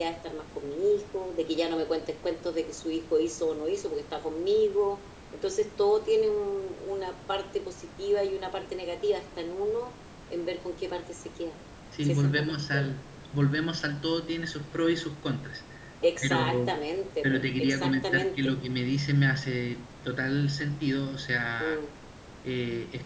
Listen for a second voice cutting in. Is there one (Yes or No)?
Yes